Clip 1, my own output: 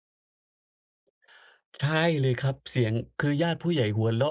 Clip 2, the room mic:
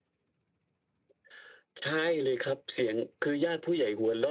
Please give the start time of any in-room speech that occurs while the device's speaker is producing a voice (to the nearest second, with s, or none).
none